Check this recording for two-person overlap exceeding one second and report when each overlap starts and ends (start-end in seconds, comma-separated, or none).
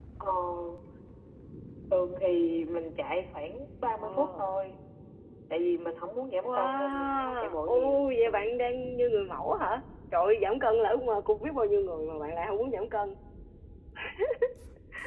6.4-8.5